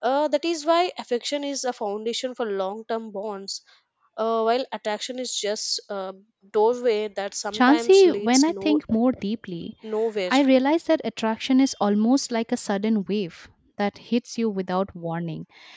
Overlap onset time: 7.5 s

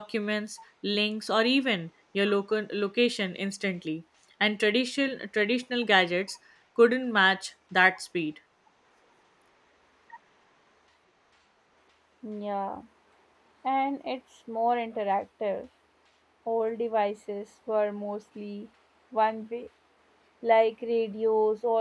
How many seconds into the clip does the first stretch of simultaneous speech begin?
none

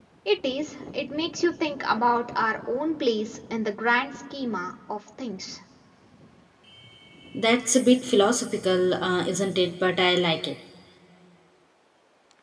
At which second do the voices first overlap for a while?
none

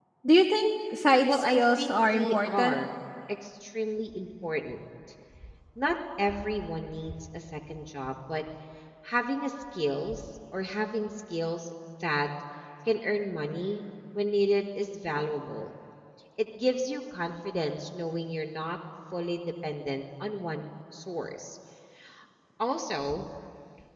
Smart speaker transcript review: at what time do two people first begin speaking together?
1.3 s

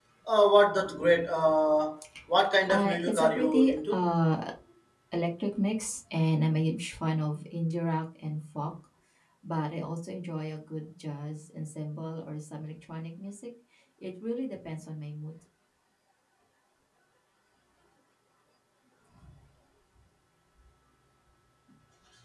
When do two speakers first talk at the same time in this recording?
2.7 s

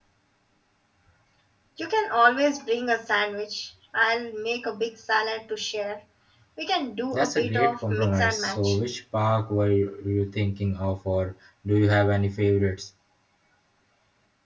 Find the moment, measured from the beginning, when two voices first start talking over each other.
7.1 s

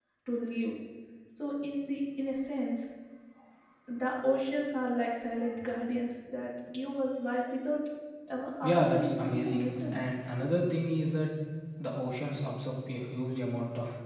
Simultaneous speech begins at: 8.6 s

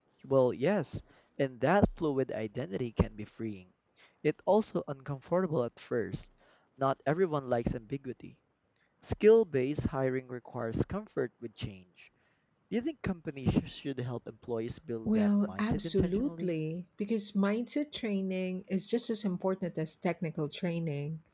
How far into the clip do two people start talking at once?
15.1 s

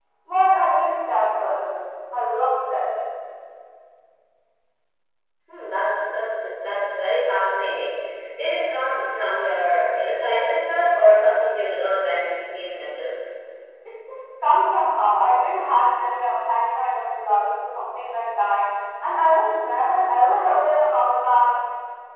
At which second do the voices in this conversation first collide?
none

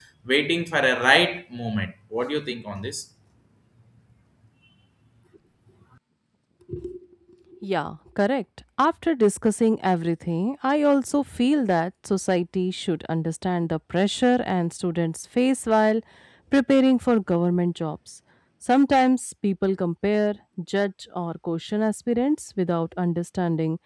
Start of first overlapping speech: none

